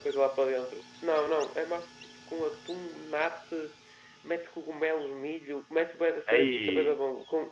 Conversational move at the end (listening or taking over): listening